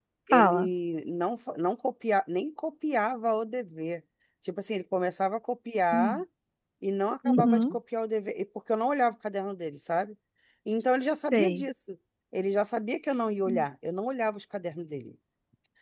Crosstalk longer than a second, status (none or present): none